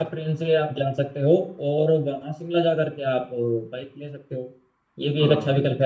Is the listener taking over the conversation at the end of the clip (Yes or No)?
No